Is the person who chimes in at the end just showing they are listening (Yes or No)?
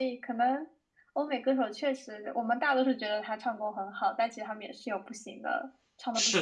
No